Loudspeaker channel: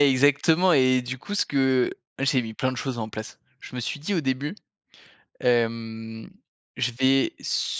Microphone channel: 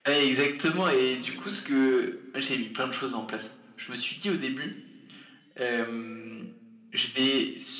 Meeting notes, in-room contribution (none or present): none